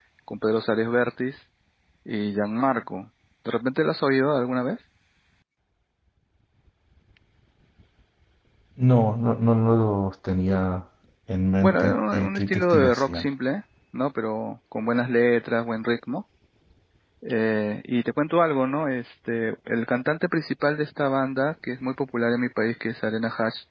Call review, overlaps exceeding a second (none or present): present